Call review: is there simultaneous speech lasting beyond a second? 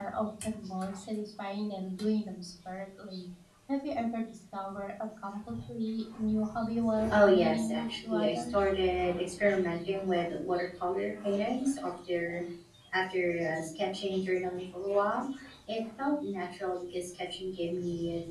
Yes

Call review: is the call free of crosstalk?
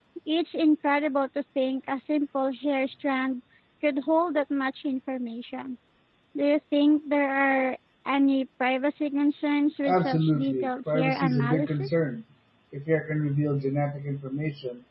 No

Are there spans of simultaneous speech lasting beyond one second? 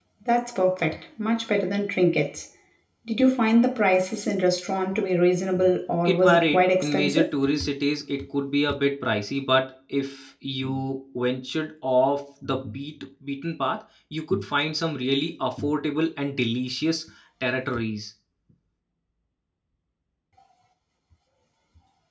Yes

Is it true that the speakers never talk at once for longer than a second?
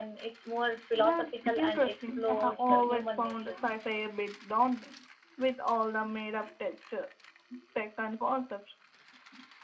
No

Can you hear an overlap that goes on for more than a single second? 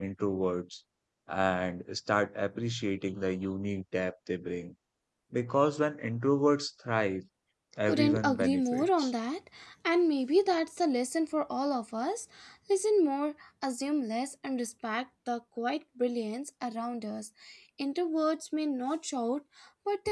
Yes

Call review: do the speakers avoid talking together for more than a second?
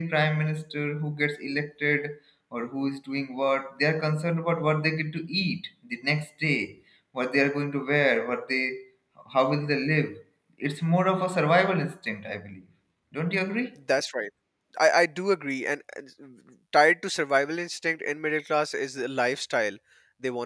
Yes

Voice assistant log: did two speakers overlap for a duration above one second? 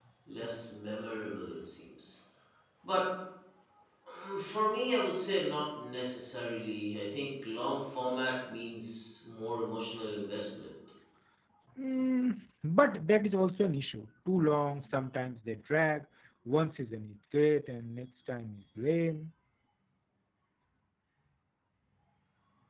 No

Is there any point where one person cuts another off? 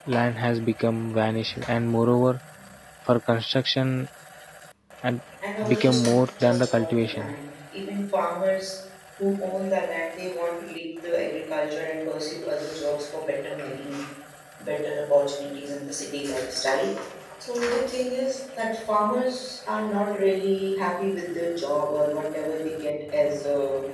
Yes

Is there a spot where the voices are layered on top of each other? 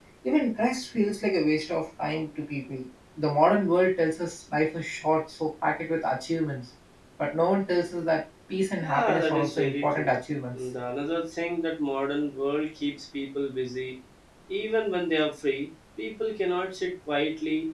Yes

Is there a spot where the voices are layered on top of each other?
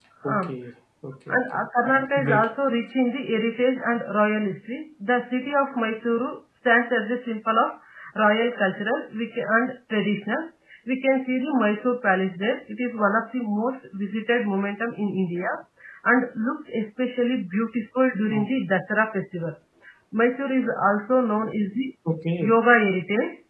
Yes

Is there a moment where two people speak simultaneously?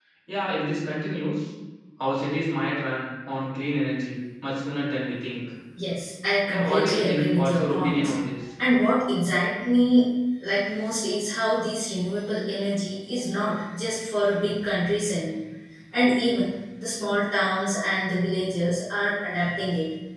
Yes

